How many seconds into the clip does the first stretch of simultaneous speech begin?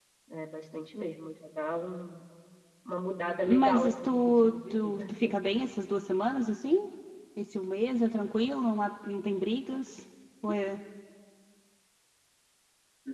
3 s

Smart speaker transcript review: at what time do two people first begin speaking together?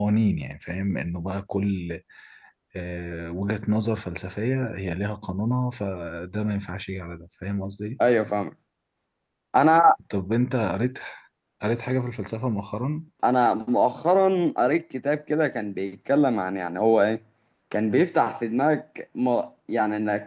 none

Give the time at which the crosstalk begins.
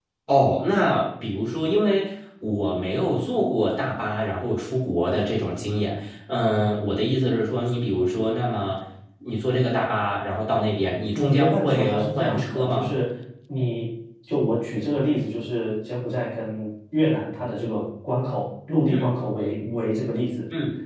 11 s

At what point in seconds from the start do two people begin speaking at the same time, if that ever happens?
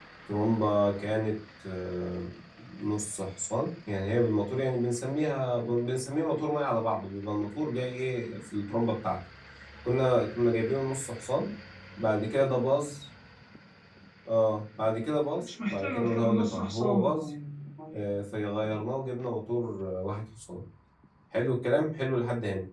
15 s

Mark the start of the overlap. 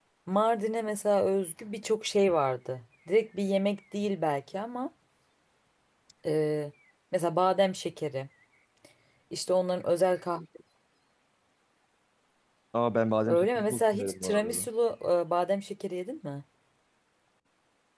13 s

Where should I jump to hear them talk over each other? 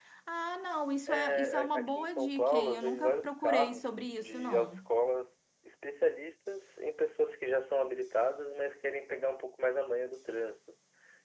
1 s

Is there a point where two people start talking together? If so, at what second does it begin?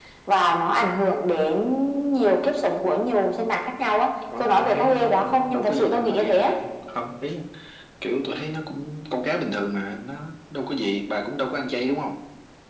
4 s

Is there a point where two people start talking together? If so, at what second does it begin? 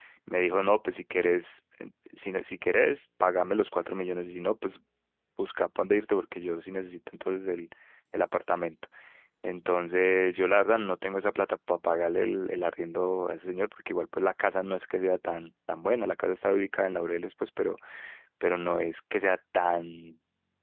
none

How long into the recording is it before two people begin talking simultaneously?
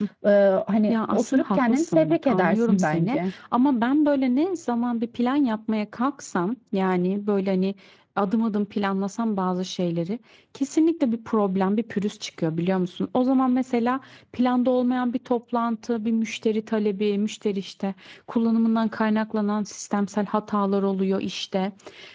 1 s

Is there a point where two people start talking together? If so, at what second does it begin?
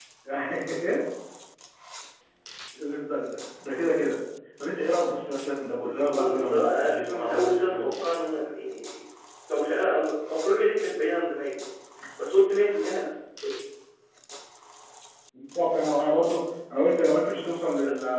6 s

